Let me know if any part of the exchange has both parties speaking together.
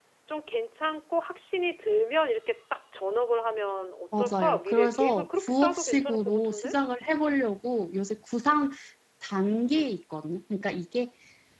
Yes, from 4.2 s

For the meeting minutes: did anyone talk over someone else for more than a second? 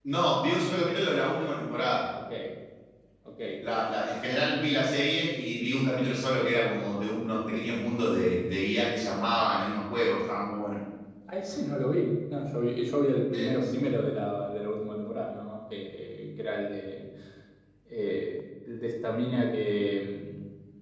No

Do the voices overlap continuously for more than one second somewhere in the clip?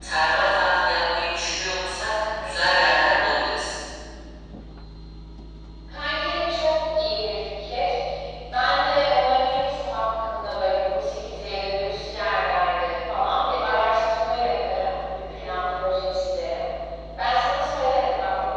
No

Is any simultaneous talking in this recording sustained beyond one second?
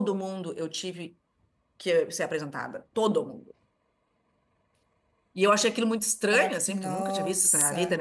Yes, from 6.3 s

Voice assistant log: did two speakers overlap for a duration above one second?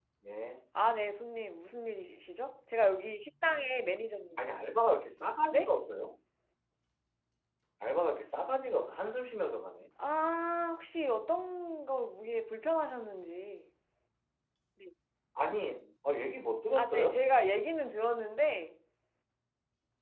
No

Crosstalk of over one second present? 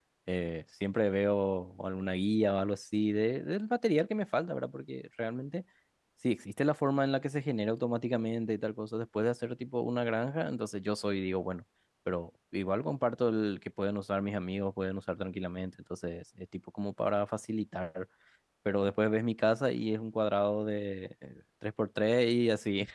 No

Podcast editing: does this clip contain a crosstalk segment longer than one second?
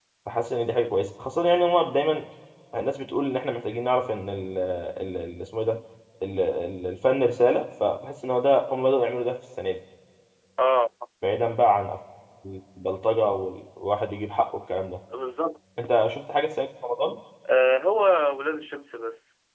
No

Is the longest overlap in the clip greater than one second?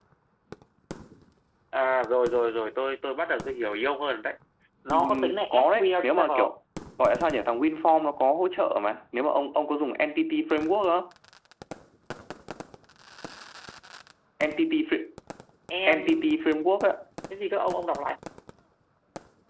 Yes, from 4.9 s

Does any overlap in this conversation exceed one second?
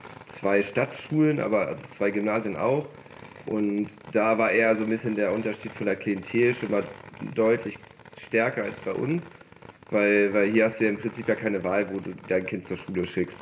No

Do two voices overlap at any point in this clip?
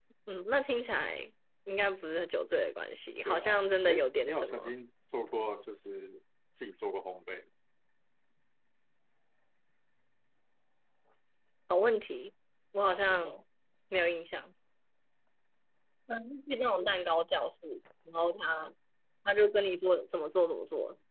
Yes, from 3.2 s

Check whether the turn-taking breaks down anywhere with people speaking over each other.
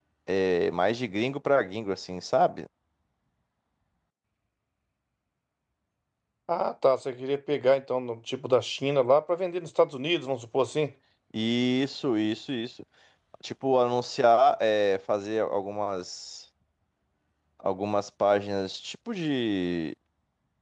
No

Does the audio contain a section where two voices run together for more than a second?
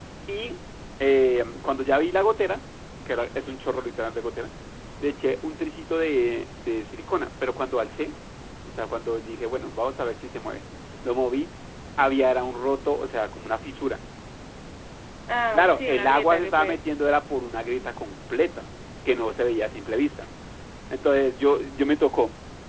Yes, from 15.5 s

